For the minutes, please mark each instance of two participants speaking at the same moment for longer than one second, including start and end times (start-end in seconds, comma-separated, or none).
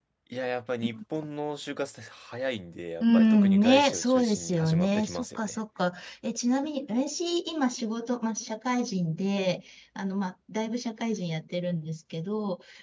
3.0-5.6